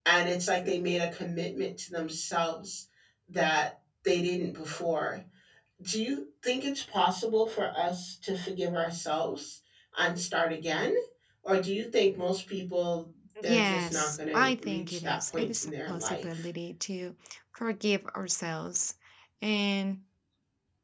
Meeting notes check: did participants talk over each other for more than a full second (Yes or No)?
Yes